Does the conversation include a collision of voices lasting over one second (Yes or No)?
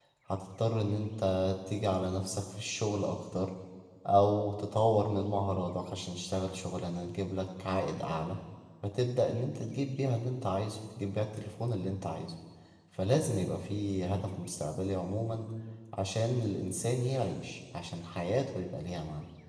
No